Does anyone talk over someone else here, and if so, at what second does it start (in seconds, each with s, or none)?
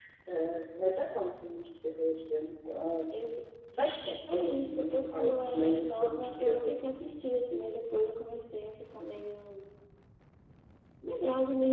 4.3 s